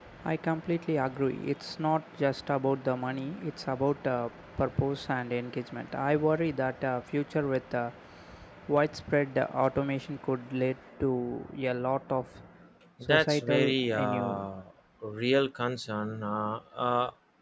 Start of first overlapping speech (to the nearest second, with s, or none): 13 s